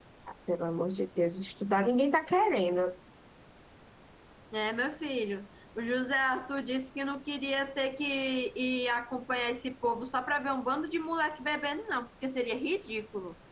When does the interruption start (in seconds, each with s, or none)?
none